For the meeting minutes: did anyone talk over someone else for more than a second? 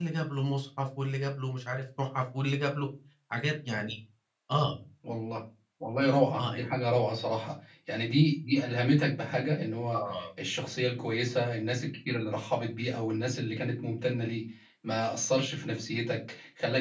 No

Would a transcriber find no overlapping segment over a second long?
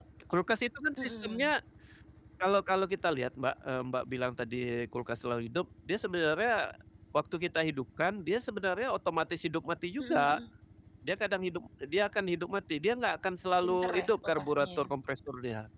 No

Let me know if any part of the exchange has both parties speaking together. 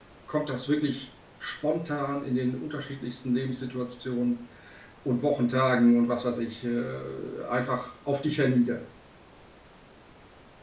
No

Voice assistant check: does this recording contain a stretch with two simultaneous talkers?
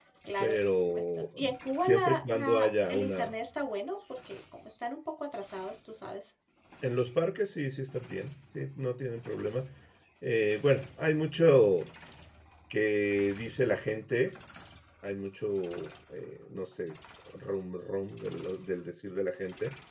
Yes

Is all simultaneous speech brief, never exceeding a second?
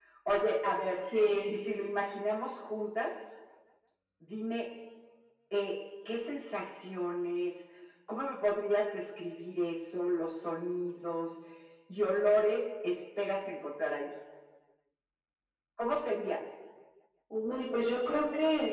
Yes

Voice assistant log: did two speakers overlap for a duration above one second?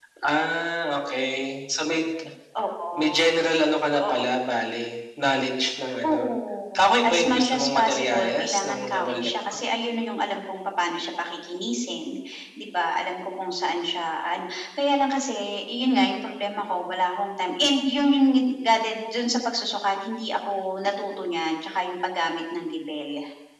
Yes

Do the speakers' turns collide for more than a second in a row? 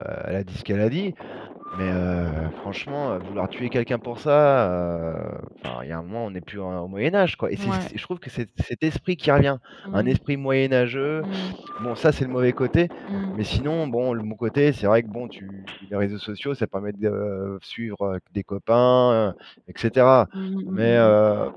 No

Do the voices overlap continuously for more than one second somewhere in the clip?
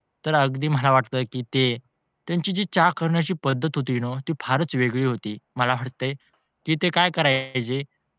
No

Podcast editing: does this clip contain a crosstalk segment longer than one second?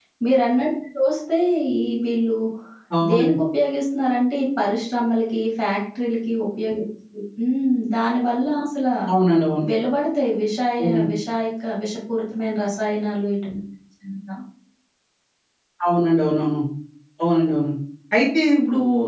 No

